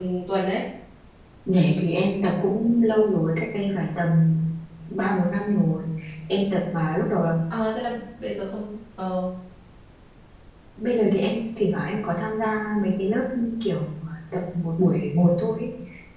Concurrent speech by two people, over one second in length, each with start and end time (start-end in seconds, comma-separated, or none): none